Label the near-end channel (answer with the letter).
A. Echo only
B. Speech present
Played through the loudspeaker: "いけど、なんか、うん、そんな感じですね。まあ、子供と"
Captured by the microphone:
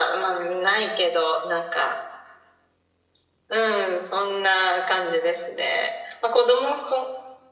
A